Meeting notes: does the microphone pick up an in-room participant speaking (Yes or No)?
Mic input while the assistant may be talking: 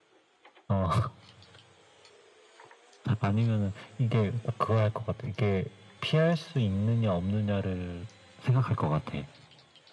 No